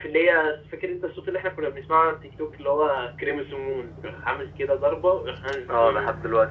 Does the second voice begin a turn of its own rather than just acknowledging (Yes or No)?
Yes